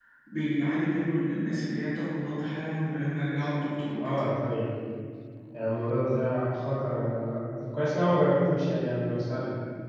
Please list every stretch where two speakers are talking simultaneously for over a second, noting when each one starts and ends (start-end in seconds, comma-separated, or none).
none